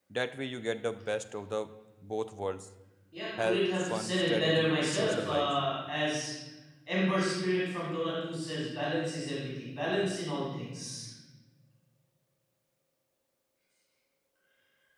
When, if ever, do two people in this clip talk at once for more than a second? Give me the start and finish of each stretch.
3.4-5.5

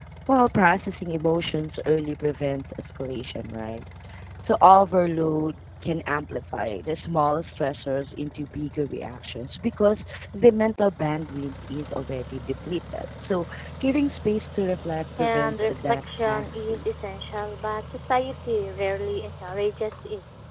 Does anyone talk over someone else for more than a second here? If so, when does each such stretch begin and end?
15.2-16.8

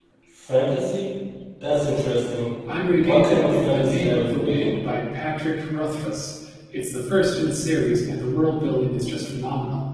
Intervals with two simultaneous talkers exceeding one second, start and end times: 3.0-4.8

